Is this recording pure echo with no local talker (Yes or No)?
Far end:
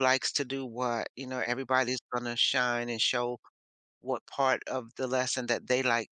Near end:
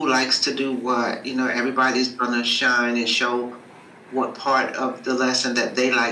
Yes